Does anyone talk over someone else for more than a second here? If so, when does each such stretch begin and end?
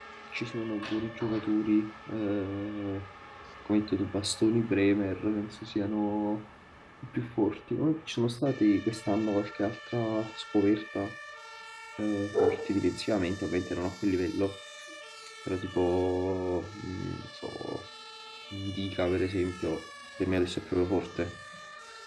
none

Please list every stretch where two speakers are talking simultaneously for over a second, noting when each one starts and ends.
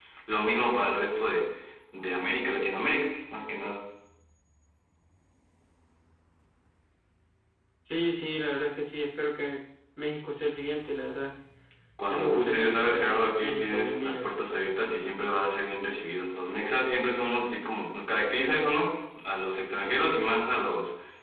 12.1-14.2

